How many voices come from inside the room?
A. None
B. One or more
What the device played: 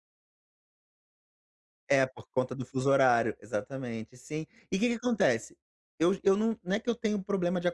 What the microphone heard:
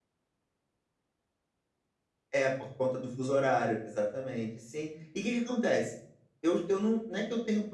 A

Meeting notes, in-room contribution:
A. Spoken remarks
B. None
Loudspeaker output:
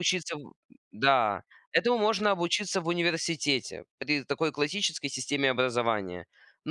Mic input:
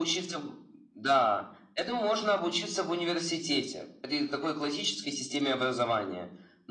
B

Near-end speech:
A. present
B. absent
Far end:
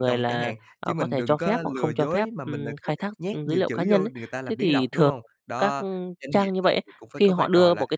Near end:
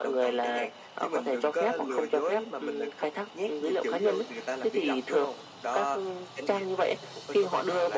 B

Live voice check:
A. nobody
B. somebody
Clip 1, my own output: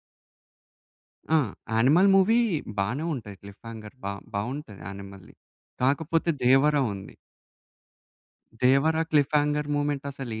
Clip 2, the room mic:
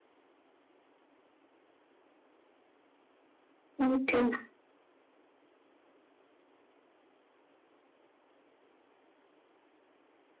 B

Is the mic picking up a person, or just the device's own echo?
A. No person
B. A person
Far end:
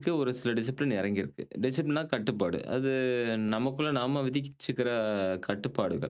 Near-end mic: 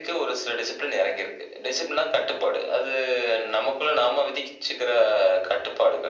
A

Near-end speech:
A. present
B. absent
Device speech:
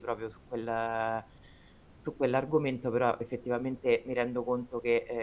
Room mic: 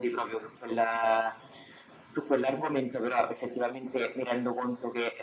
B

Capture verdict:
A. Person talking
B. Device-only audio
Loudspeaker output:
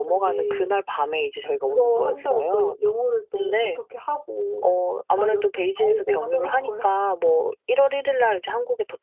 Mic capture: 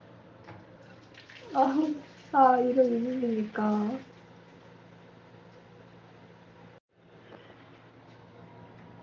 A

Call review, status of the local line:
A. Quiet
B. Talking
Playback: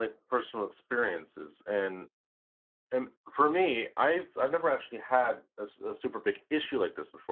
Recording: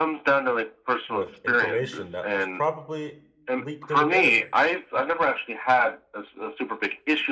B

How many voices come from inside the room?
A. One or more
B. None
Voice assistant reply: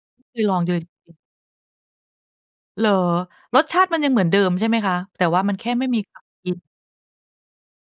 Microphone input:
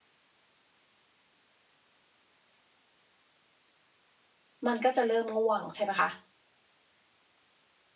A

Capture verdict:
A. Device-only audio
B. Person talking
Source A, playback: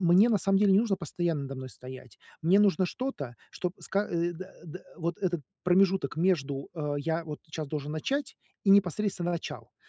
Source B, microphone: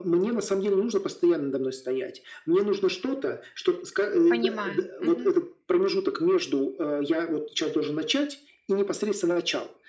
B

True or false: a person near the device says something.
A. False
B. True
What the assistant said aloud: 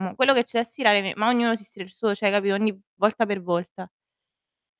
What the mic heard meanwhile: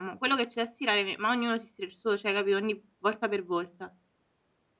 A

